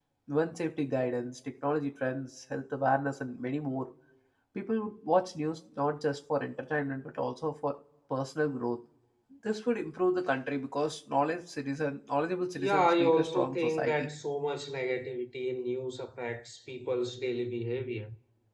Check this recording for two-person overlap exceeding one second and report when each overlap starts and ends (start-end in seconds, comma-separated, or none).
12.6-14.1